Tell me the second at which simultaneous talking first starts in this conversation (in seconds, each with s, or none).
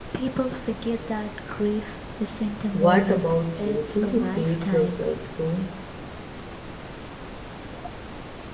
2.7 s